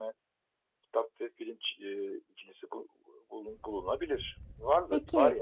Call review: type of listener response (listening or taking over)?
taking over